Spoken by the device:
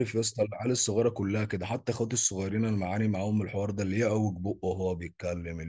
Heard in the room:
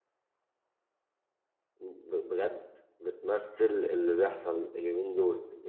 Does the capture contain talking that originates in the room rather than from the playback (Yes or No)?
Yes